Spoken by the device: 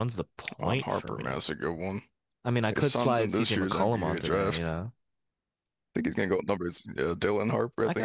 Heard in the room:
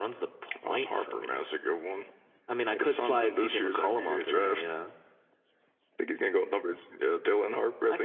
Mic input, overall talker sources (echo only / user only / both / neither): echo only